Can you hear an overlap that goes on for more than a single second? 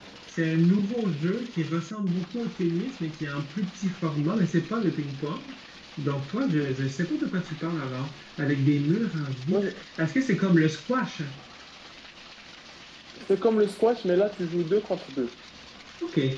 No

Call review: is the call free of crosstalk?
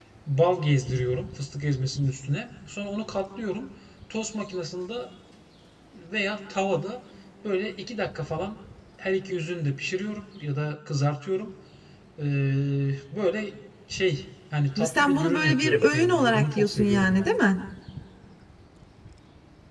No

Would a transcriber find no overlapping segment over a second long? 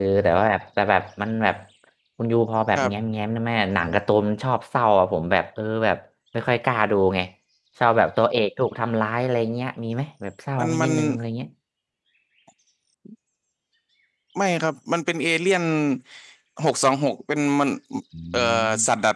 Yes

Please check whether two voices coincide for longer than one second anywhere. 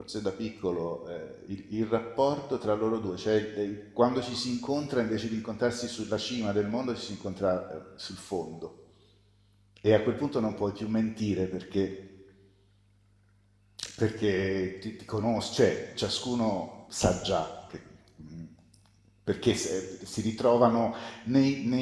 No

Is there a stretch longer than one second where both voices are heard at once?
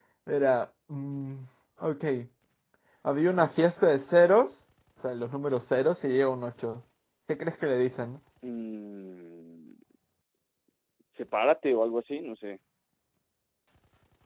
No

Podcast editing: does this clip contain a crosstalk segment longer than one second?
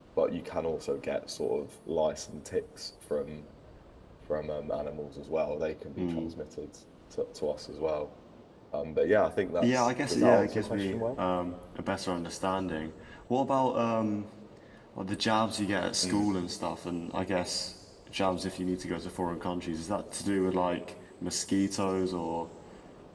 Yes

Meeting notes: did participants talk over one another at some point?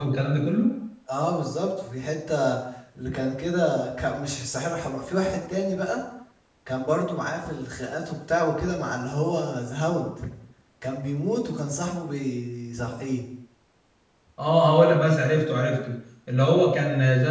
No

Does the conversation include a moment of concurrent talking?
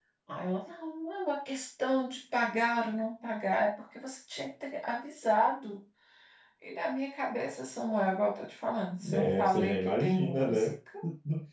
Yes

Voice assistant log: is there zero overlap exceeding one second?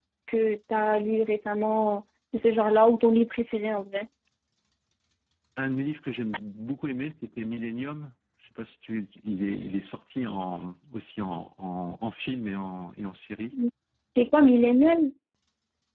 Yes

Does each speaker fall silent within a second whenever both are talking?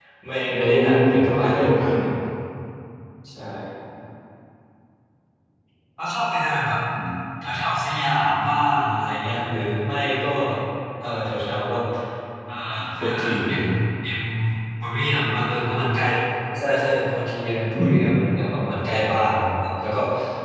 No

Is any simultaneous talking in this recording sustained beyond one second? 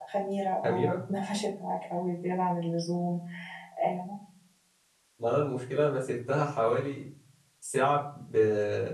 No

